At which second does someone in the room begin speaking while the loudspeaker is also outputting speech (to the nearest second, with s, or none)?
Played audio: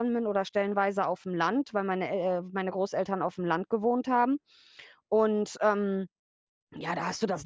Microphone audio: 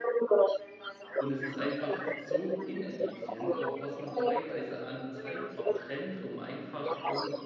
1 s